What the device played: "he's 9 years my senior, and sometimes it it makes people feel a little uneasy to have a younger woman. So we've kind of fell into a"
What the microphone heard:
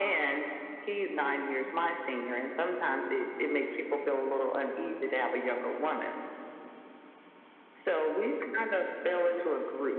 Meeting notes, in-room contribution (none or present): none